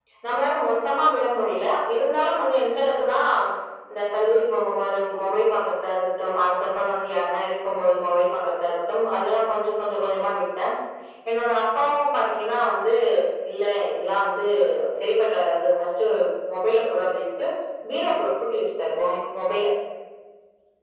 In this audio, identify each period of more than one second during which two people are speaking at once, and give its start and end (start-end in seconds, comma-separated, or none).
none